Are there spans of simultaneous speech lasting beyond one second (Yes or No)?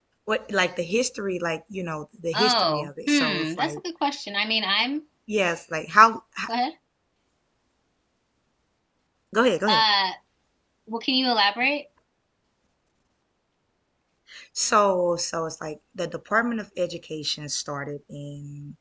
Yes